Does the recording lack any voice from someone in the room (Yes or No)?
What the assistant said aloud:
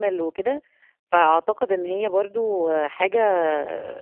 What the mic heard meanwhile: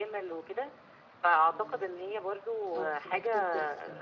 No